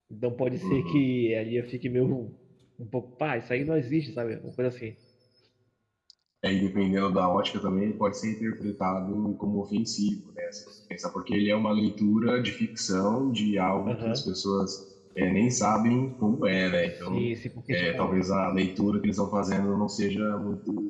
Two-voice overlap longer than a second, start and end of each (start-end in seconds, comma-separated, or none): none